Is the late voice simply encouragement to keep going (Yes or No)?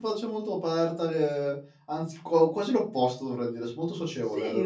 No